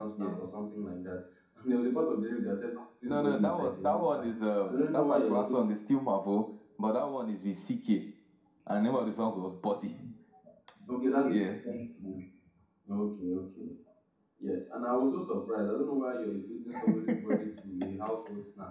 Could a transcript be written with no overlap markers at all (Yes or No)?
No